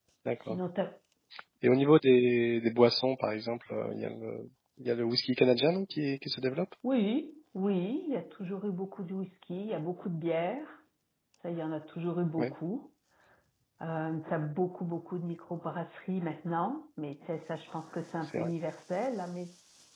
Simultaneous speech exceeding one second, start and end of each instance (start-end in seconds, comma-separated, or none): none